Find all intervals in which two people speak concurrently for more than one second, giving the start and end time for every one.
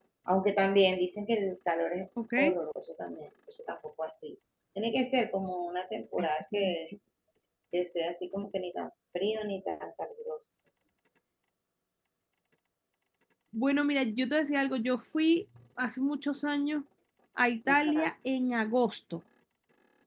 none

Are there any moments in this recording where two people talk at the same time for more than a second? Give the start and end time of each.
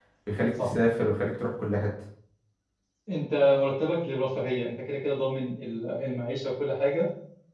none

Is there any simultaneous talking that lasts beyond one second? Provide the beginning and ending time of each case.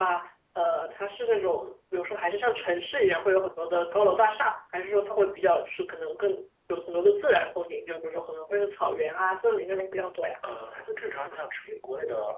none

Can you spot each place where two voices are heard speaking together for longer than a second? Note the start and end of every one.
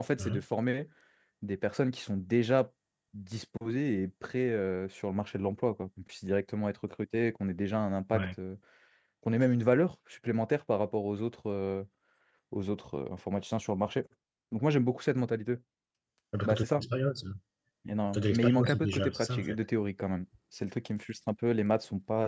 18.1-19.6

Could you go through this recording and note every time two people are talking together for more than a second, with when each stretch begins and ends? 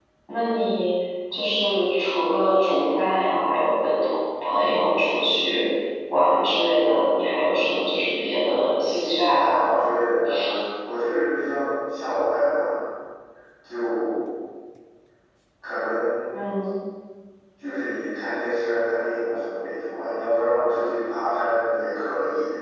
8.4-9.8

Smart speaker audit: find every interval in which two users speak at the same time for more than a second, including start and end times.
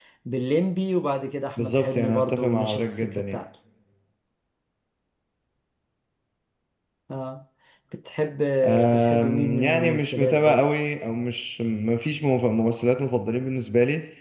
1.6-3.4, 8.9-10.6

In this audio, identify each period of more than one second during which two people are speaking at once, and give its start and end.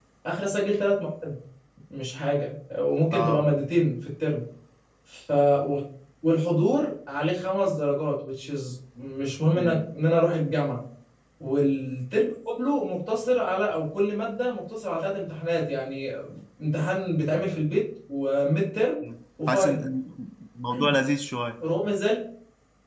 none

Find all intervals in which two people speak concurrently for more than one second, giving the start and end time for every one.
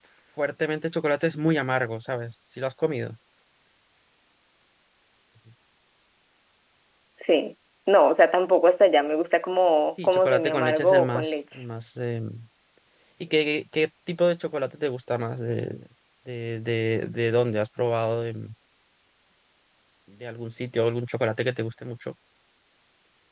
10.0-11.3

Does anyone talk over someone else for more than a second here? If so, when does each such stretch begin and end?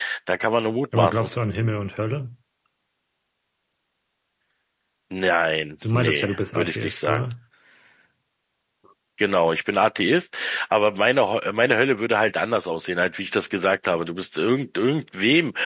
5.9-7.2

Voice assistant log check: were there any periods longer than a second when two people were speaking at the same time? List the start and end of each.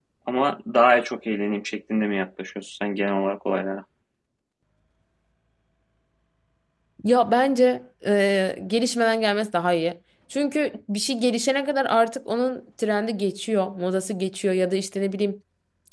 none

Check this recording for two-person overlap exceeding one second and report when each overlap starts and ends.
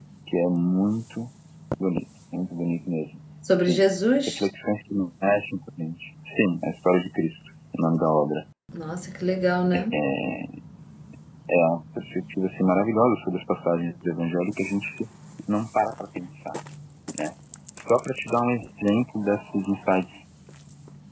none

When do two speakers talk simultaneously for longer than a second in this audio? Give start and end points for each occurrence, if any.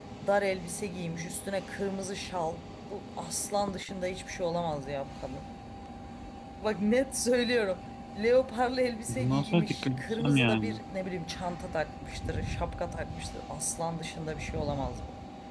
9.1-10.8

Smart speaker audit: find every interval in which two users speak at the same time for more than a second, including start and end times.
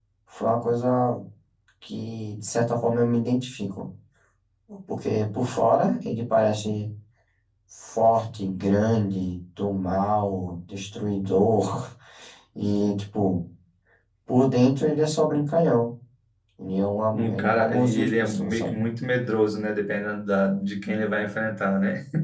17.1-18.8

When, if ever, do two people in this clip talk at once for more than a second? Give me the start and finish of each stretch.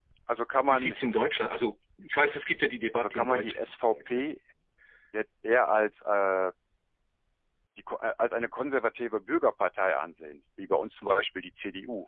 2.9-4.2

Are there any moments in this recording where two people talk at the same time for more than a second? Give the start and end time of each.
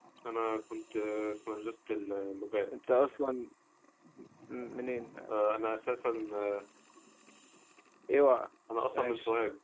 none

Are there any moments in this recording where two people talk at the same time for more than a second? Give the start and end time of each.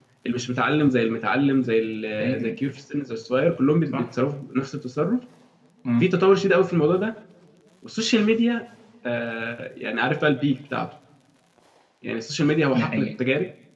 none

